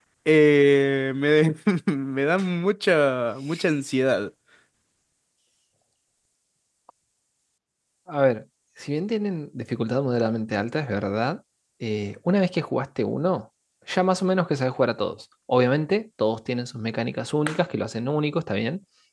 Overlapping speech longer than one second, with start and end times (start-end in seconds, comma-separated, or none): none